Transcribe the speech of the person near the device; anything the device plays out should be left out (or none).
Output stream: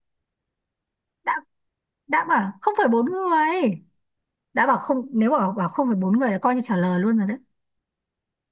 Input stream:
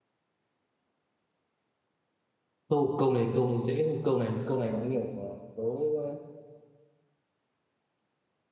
câu câu này câu này dễ thôi câu này câu này có nhiều à, đố ờ,